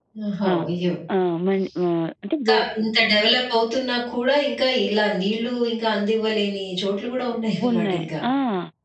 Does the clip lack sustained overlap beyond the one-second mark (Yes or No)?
Yes